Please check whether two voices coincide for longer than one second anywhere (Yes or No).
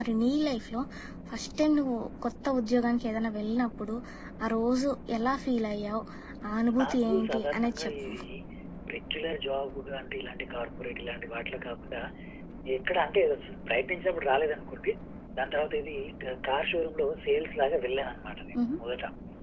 Yes